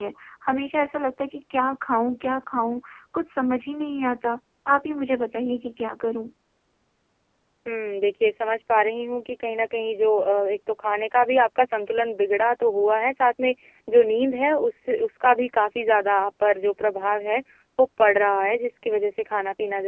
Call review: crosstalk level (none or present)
none